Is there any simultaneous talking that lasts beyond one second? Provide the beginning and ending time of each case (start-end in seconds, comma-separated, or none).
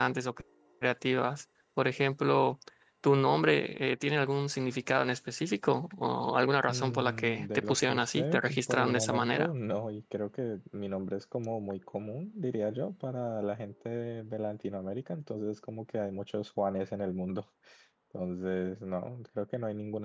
6.7-9.5